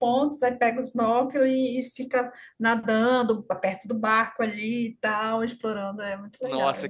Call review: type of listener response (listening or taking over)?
taking over